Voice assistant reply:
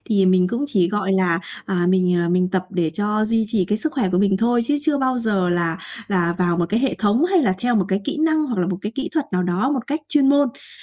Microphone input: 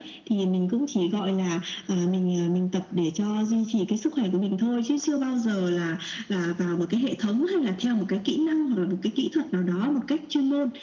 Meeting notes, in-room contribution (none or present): none